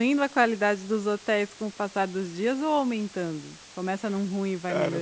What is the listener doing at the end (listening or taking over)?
taking over